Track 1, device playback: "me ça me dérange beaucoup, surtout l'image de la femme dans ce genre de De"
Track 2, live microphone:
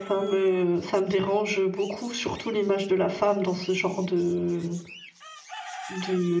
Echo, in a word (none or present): present